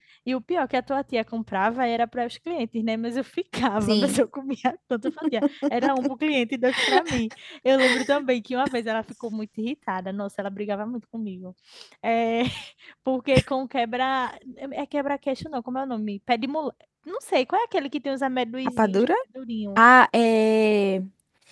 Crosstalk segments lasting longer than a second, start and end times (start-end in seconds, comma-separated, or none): none